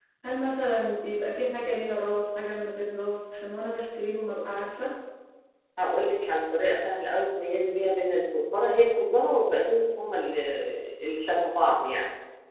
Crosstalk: none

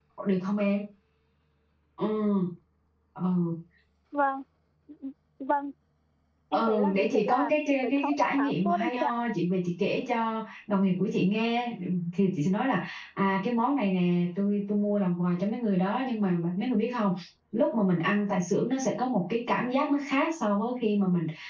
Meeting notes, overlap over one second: present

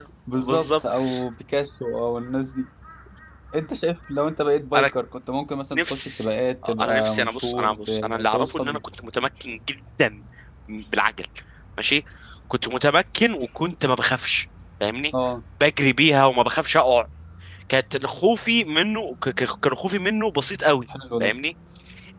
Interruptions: present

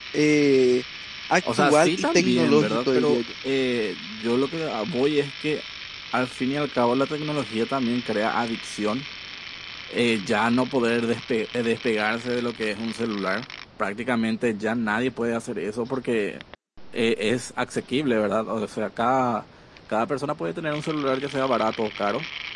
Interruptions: present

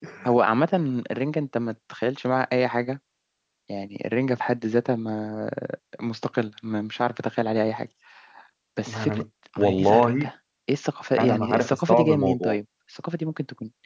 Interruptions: present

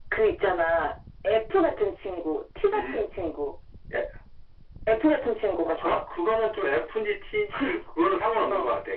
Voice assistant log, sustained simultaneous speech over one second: none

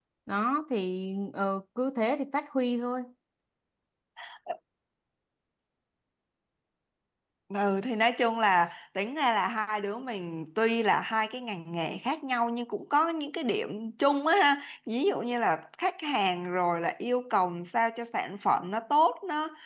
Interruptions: none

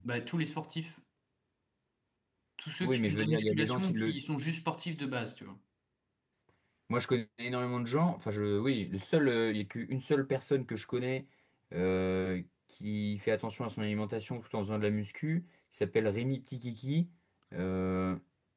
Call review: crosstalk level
present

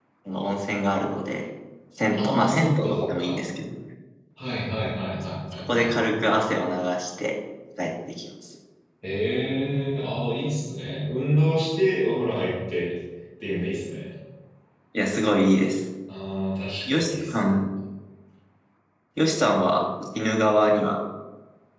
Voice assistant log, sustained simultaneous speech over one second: present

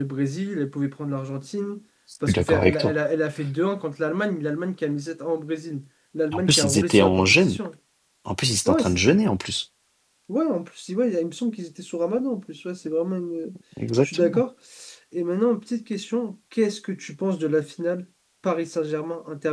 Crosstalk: present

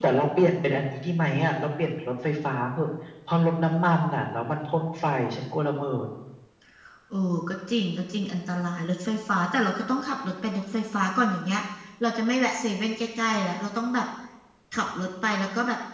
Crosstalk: none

